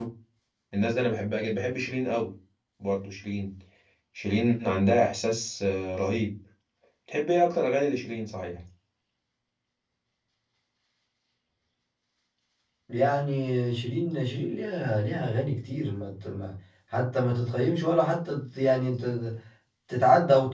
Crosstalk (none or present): none